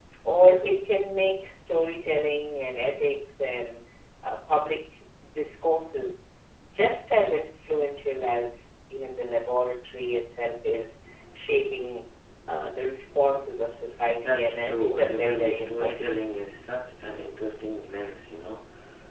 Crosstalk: present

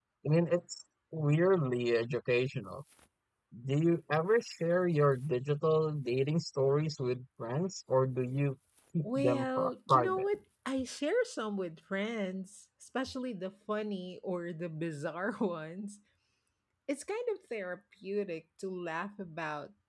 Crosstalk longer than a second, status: present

